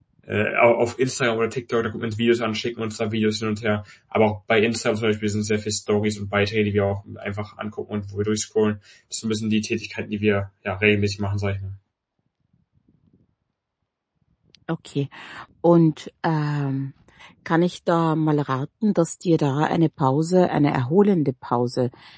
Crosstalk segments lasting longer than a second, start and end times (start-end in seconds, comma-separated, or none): none